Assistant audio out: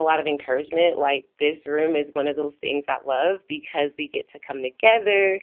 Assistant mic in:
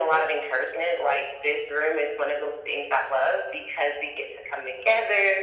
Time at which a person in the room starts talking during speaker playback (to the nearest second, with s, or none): none